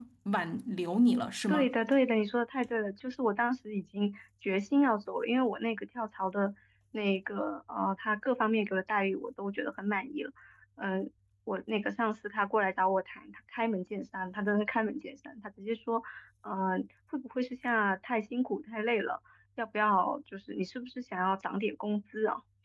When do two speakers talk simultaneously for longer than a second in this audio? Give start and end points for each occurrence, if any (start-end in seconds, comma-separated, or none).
none